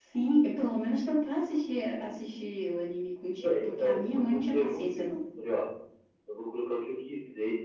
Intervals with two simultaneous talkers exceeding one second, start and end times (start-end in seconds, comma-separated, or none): 3.4-5.2